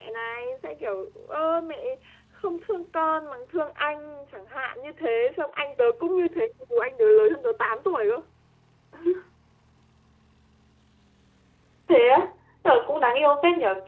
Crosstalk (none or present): none